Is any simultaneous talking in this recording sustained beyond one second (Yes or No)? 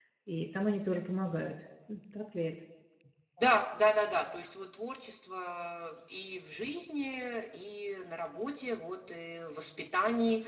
No